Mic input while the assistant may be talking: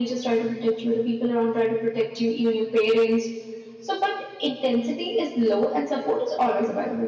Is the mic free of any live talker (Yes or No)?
Yes